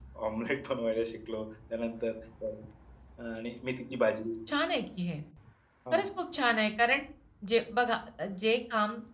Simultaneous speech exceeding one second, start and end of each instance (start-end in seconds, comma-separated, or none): none